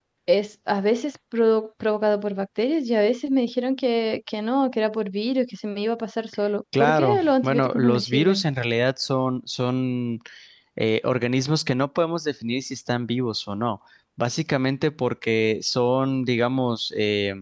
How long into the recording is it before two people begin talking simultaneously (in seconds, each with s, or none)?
6.7 s